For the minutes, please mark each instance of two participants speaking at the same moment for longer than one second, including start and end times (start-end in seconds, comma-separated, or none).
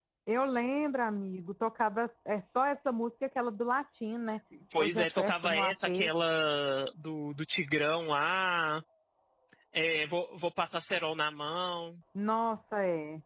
4.8-6.1